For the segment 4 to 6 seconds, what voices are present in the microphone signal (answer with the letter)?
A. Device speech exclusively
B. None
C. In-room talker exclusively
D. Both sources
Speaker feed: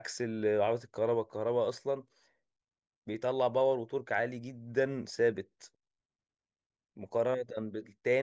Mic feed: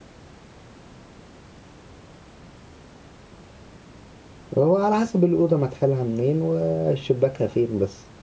C